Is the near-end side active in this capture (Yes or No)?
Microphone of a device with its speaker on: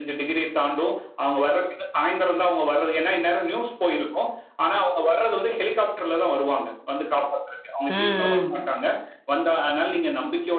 Yes